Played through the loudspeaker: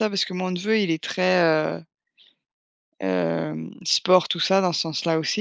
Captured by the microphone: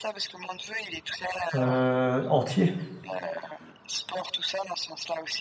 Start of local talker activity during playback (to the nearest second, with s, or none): 2 s